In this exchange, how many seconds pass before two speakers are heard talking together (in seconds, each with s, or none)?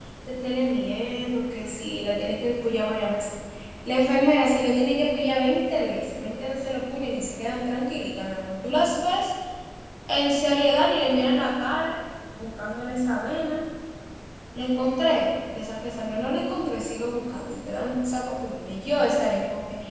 none